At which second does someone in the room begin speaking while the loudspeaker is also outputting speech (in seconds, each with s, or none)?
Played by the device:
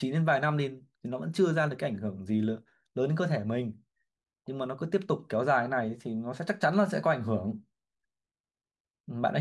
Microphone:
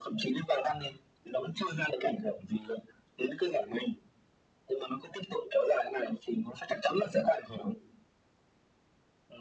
none